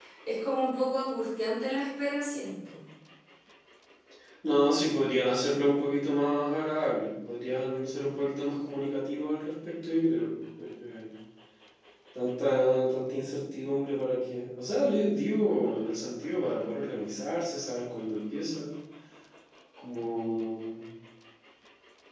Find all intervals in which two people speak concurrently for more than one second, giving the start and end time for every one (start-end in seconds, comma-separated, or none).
none